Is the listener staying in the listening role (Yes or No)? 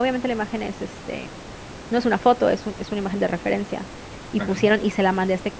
Yes